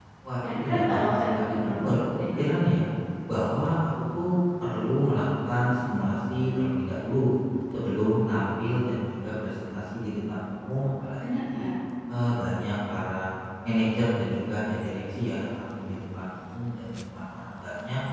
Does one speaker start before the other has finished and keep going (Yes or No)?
Yes